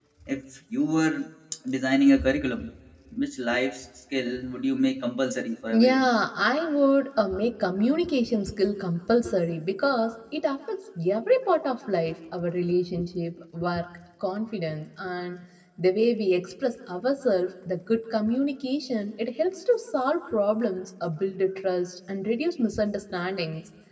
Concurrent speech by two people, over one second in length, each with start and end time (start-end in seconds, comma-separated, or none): none